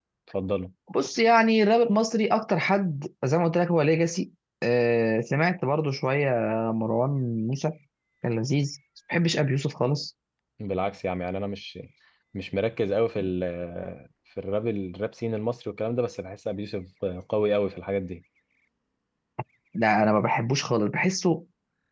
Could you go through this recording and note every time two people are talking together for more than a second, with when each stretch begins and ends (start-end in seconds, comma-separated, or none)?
none